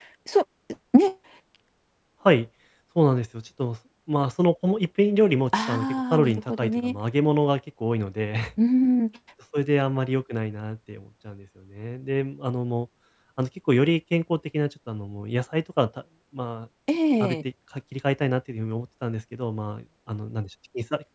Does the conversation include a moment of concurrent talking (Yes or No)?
Yes